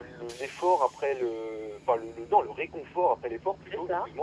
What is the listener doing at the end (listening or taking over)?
listening